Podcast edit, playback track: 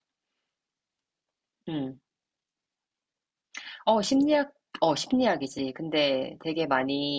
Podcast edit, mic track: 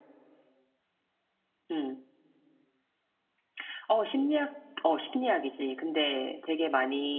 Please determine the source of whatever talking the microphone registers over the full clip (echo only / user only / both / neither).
echo only